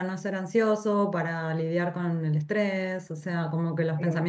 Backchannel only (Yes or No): Yes